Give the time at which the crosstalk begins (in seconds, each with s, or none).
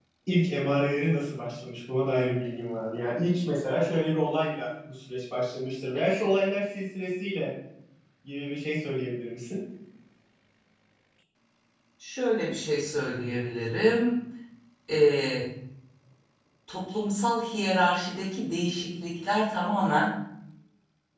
none